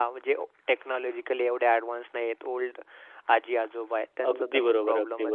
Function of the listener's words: taking over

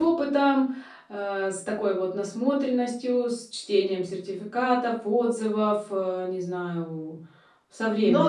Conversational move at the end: taking over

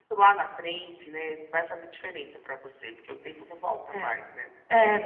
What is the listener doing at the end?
taking over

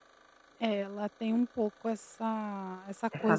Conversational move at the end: listening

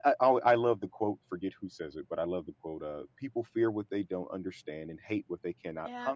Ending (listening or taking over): taking over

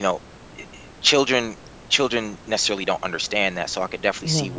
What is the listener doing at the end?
listening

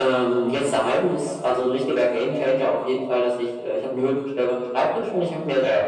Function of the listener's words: listening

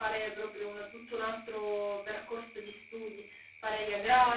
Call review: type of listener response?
listening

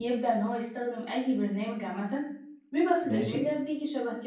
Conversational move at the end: listening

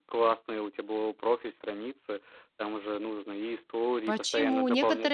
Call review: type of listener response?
taking over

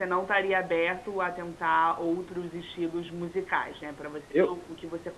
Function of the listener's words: listening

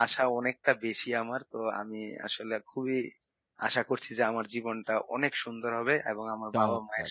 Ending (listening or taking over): listening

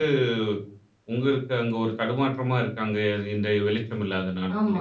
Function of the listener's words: taking over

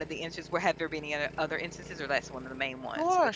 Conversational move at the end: taking over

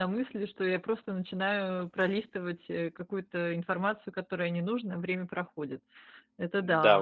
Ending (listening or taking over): taking over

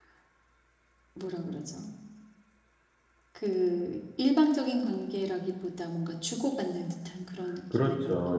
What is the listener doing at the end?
taking over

